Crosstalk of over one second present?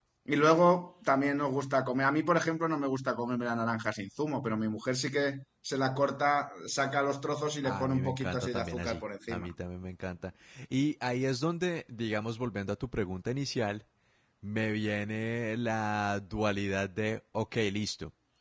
Yes, from 7.6 s

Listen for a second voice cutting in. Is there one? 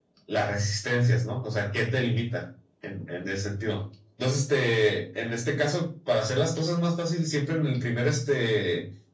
No

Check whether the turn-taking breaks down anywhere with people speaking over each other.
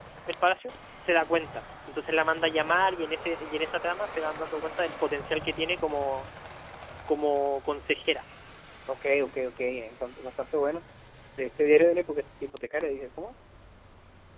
No

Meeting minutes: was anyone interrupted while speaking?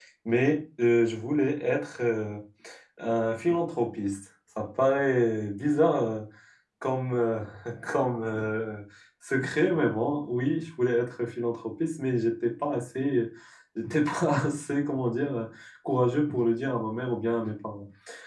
No

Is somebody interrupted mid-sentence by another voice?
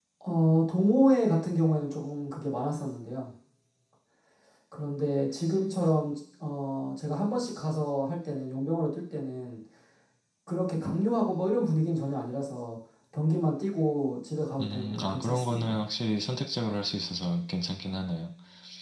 Yes, from 14.6 s

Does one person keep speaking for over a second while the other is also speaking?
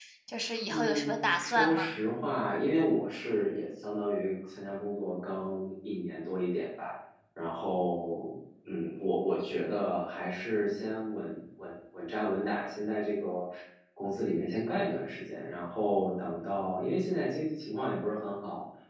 Yes, from 0.7 s

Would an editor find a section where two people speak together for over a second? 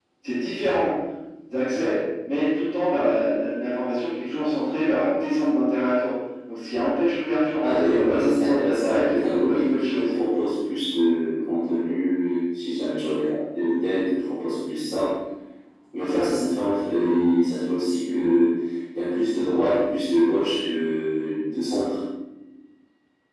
Yes, from 7.7 s

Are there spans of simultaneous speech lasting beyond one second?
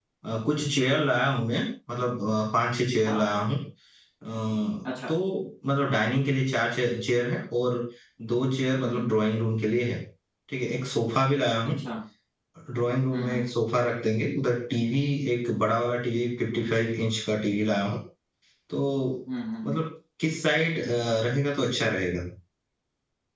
No

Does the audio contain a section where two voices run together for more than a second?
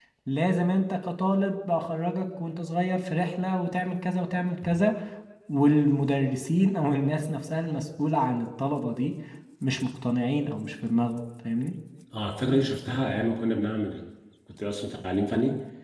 No

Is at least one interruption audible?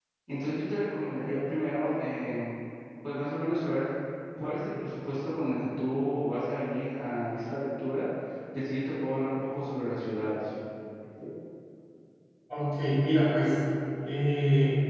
No

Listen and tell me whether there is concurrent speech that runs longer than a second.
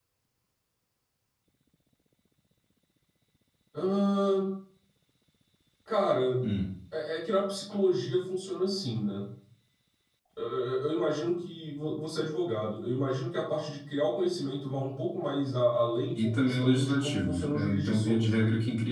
Yes, from 16.2 s

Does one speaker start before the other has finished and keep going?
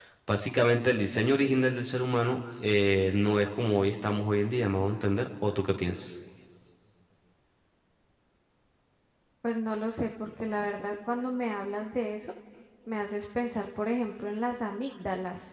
No

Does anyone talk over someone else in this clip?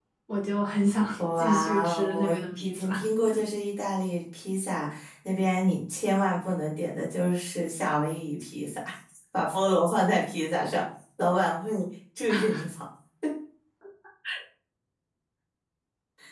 Yes, from 1.2 s

